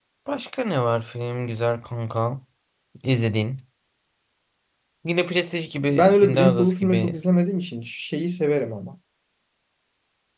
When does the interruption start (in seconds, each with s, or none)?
5.9 s